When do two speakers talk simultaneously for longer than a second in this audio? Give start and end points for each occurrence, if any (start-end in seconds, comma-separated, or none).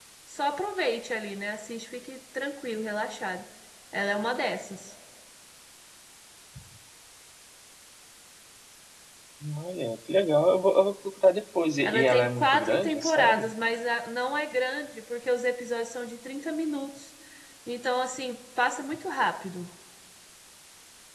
11.8-13.5